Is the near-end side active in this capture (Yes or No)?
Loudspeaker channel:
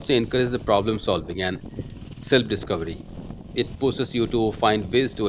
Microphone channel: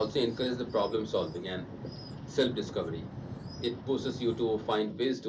No